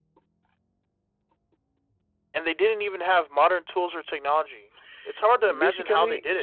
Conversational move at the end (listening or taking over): taking over